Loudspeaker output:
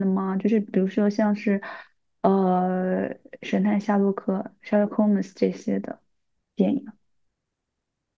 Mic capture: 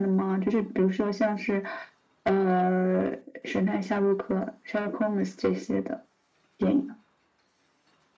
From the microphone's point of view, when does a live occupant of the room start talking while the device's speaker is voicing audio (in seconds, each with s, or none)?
none